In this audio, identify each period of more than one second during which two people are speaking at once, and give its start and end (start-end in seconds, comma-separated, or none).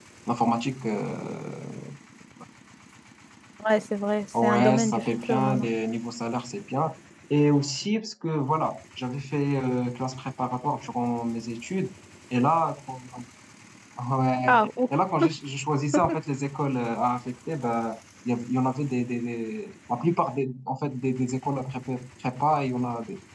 4.4-5.7